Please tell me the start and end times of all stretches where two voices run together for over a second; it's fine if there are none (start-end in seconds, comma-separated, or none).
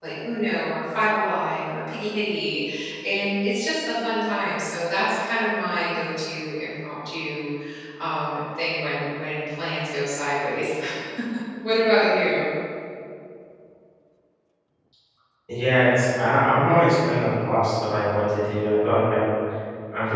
none